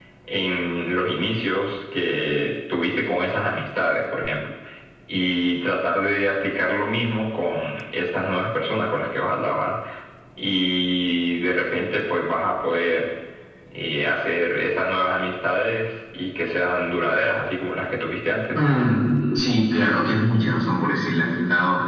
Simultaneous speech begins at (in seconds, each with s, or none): none